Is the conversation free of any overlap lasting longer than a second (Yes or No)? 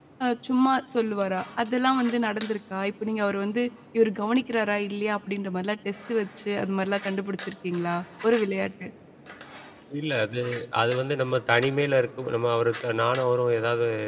Yes